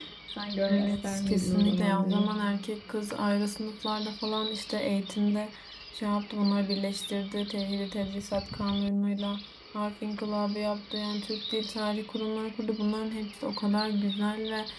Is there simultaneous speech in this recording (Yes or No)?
Yes